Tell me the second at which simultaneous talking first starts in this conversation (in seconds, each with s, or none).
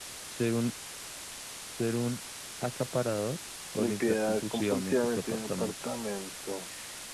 3.8 s